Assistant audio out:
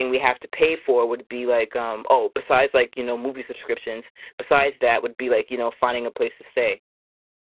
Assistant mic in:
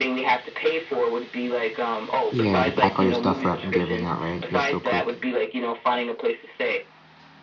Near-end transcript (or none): Yeah, to pack all your stuff up and get everything out, right? You're so quick.